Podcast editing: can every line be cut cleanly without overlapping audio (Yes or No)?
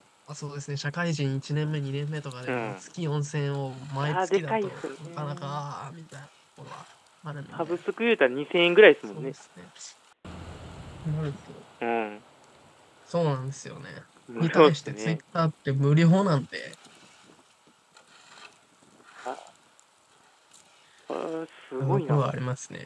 No